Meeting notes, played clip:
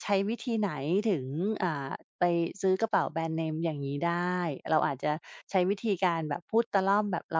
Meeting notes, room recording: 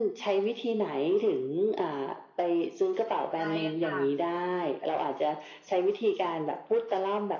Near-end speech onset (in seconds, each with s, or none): 3.3 s